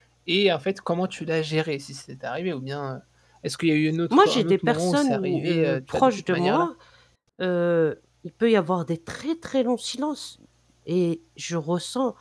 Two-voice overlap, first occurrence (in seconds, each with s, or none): 4.1 s